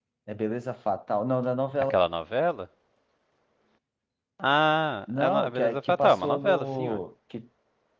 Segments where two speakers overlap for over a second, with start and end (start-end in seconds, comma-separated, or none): 5.2-7.0